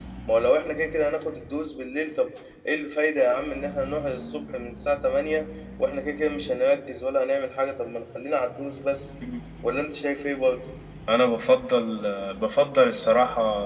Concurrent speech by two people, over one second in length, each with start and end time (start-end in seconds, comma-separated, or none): none